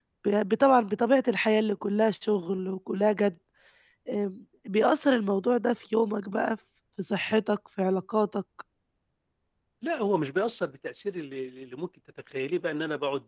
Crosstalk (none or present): none